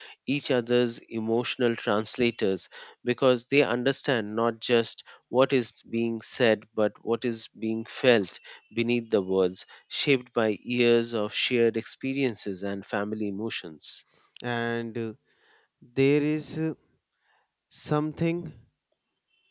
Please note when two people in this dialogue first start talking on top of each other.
none

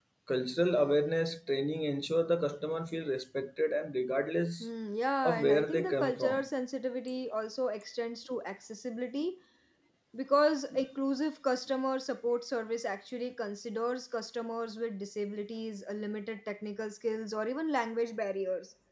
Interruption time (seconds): 5.2 s

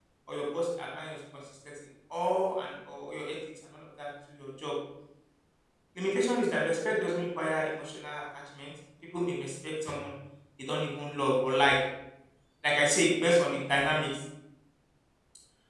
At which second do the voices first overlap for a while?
none

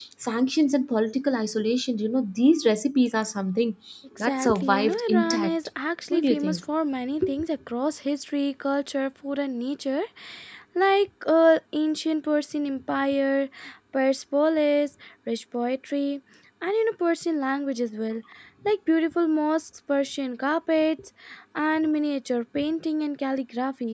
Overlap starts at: 4.2 s

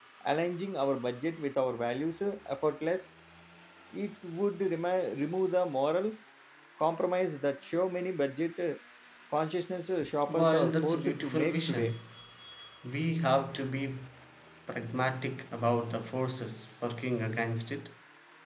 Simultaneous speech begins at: 10.3 s

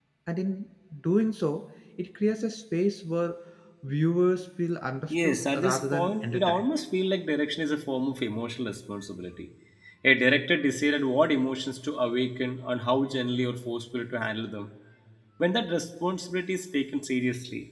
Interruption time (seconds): 5.1 s

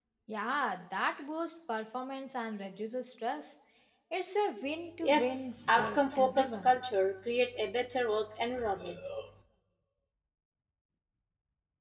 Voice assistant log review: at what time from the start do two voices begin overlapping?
5.0 s

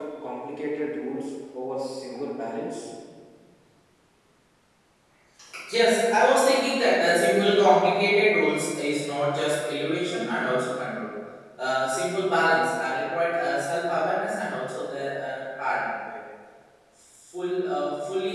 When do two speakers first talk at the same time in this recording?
none

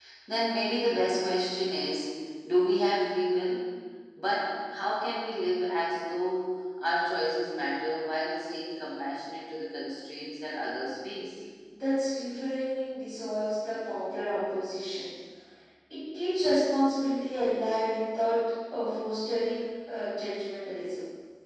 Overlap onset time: none

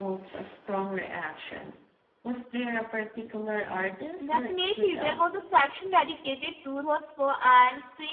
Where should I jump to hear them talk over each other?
4.2 s

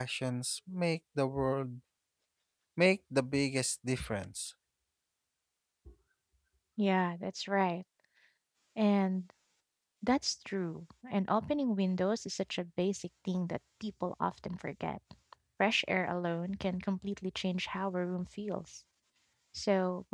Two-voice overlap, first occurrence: none

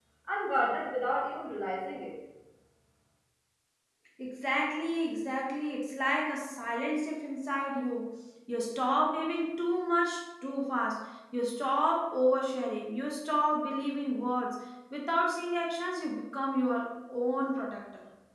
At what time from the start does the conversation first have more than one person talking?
none

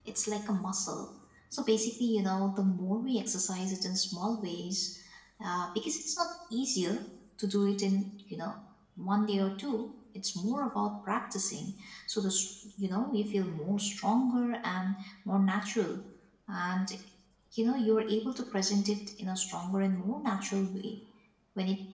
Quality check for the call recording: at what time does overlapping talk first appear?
none

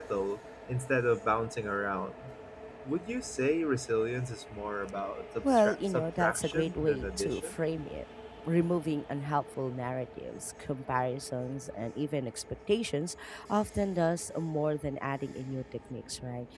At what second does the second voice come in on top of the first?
5.4 s

